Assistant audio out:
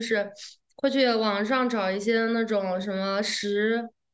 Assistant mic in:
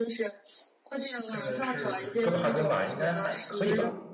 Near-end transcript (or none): 呃是哥本哈根吧，应该还可以吧？